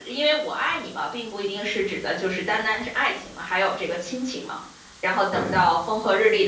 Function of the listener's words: listening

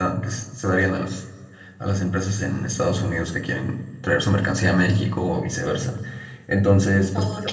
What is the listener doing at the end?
listening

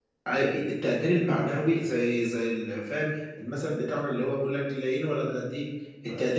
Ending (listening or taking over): listening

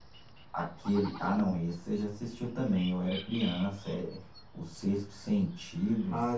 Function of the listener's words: taking over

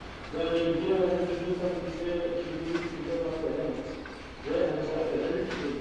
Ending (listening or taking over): listening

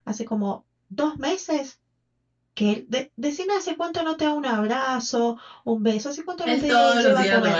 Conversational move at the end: taking over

